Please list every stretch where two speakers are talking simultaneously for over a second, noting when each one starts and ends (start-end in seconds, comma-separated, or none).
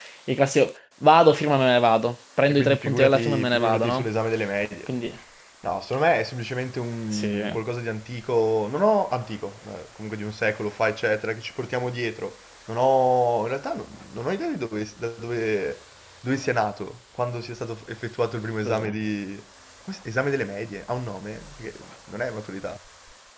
2.5-4.1